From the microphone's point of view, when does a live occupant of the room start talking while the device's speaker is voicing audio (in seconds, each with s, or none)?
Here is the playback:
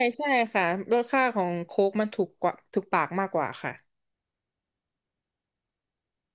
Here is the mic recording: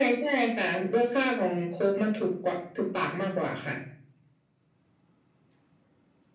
none